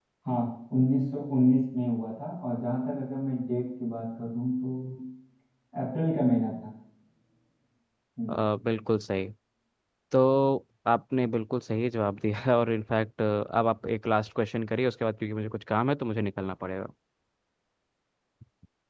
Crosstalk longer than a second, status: none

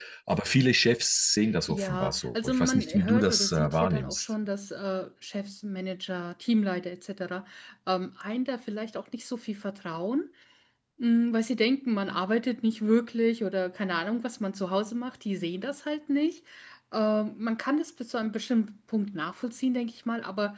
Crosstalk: present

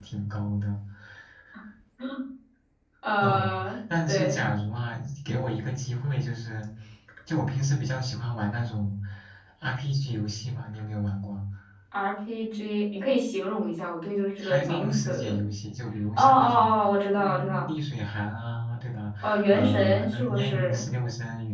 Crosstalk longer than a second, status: present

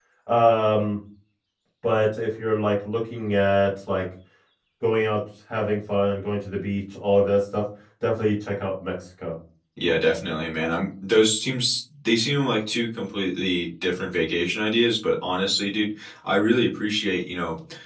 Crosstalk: none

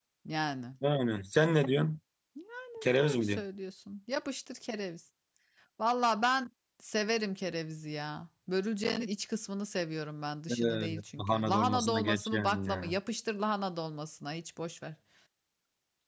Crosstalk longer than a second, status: present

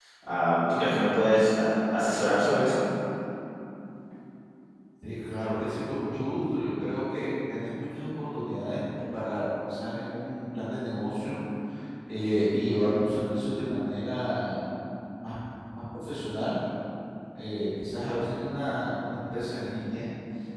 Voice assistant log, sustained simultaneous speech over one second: none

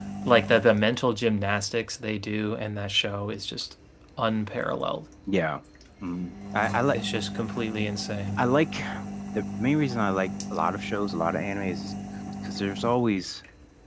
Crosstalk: none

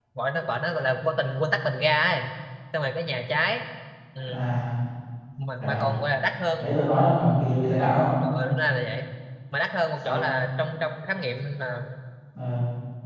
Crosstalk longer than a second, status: none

